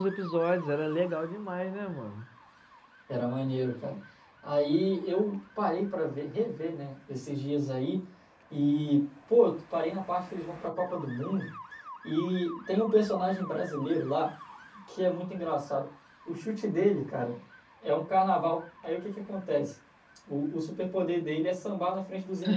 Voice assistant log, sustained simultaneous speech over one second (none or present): none